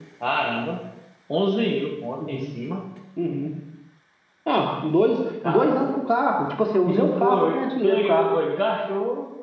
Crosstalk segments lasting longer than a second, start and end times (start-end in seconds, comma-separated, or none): 6.8-8.3